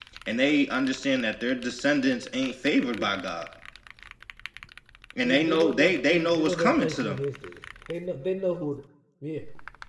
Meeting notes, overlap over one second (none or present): present